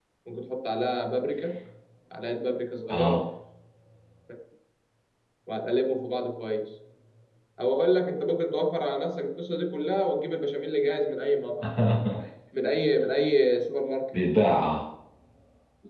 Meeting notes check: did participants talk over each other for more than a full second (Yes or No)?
No